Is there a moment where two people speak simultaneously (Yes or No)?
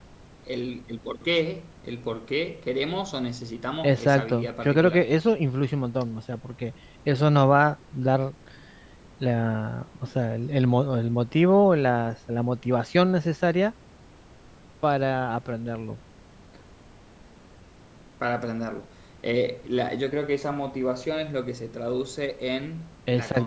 Yes